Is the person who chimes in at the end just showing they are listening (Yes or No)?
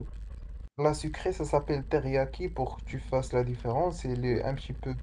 Yes